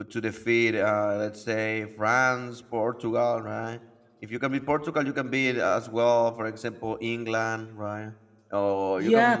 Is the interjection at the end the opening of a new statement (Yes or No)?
No